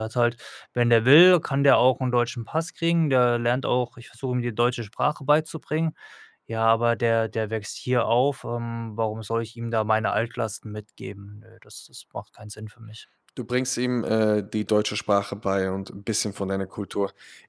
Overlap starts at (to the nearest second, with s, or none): none